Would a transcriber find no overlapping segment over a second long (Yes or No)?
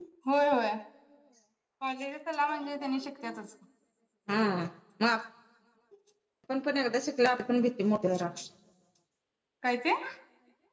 Yes